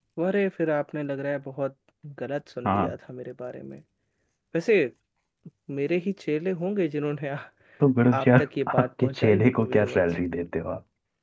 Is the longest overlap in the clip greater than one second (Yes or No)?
Yes